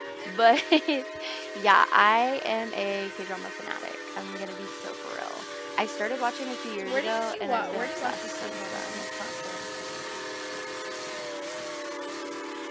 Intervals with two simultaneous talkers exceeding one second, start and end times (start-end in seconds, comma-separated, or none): 6.8-9.0